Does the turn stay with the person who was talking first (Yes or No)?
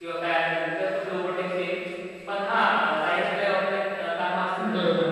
No